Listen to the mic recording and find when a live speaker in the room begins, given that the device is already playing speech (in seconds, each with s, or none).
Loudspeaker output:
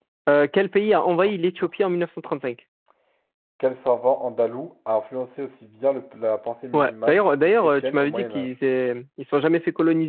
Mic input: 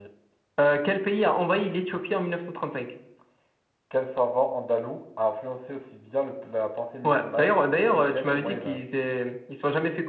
none